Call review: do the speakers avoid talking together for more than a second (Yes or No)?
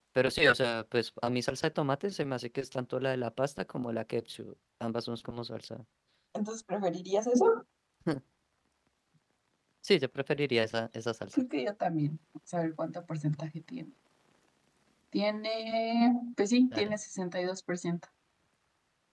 Yes